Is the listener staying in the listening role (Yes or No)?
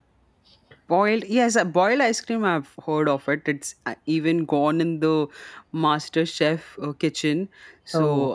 Yes